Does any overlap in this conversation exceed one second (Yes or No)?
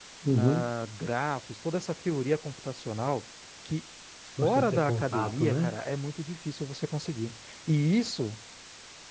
Yes